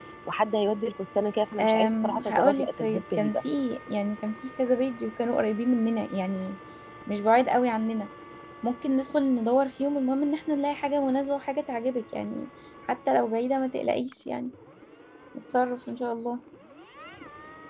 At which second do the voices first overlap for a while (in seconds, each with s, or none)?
1.6 s